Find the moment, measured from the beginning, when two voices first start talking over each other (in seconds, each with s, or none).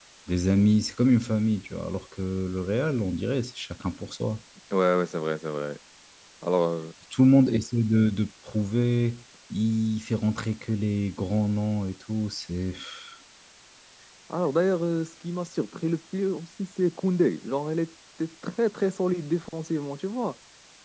none